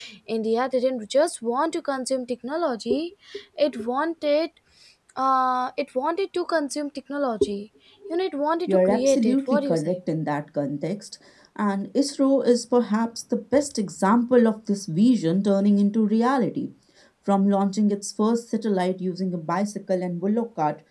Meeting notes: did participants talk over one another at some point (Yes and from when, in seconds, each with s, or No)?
Yes, from 8.7 s